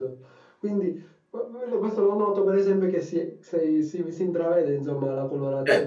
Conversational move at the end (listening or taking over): taking over